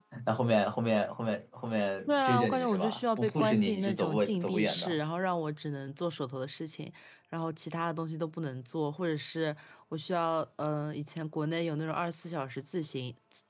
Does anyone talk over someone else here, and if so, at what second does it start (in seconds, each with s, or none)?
2.1 s